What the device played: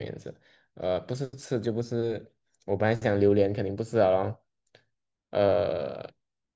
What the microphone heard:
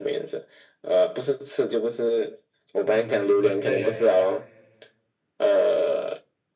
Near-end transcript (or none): 嗯，那那你要